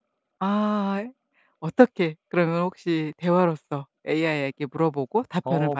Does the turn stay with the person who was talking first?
No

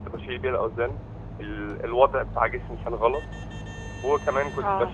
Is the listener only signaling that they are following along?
Yes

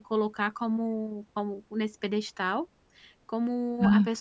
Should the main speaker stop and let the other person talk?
No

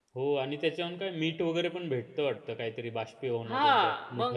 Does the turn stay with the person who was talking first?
No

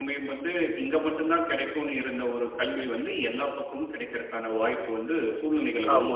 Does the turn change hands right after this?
Yes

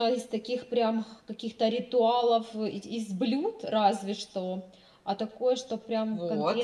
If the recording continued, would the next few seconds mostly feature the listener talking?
Yes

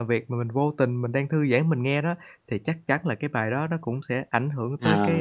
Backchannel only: No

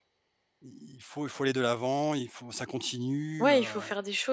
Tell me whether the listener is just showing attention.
No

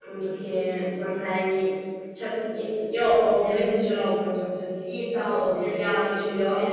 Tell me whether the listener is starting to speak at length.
No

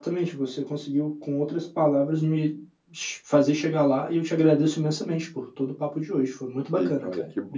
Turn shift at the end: Yes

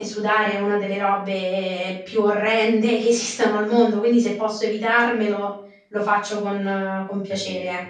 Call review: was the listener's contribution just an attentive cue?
No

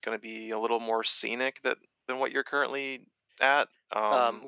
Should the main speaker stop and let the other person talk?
Yes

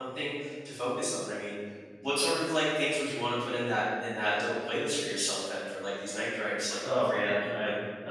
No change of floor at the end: No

